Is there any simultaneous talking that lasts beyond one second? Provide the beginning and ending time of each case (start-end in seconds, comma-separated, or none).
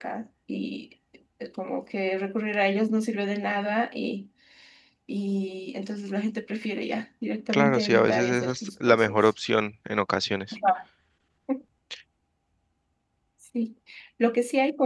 7.5-9.2